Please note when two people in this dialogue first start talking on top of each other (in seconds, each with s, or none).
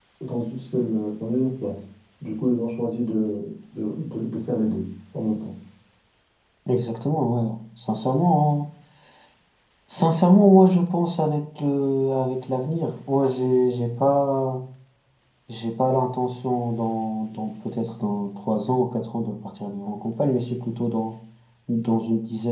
none